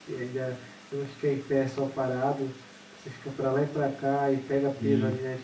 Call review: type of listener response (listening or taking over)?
listening